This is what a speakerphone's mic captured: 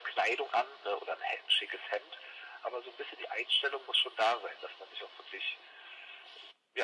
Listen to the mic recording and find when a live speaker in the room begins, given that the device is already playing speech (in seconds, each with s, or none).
none